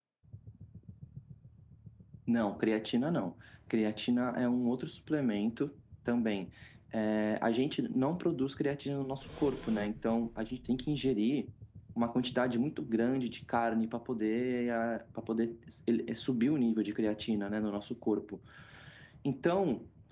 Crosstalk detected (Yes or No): No